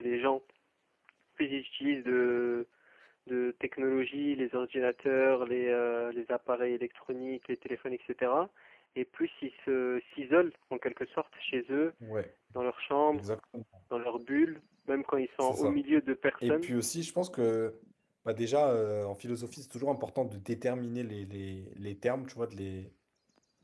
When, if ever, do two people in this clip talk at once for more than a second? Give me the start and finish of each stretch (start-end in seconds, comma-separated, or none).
none